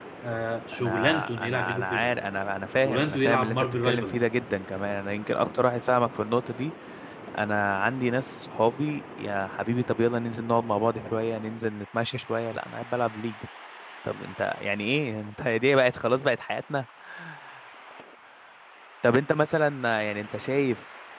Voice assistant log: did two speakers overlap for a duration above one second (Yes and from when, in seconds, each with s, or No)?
Yes, from 0.7 s